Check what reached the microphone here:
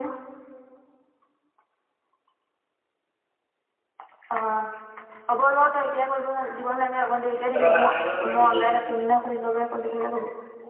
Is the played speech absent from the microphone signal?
No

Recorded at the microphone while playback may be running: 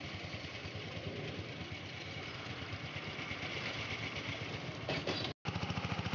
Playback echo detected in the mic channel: No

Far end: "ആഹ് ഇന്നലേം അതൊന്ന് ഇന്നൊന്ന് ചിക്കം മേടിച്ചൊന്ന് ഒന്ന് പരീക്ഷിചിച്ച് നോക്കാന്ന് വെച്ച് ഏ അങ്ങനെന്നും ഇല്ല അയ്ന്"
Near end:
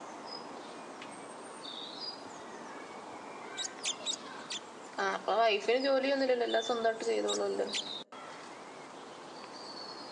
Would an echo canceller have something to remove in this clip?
No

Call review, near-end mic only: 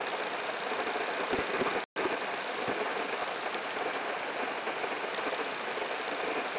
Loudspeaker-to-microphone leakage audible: No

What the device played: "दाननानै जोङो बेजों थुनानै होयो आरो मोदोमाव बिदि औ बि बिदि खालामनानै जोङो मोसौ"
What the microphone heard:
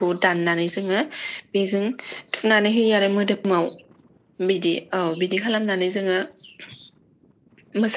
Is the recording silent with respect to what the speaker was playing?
No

